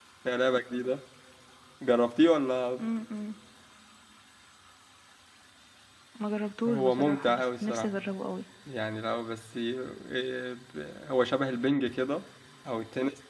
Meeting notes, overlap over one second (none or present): present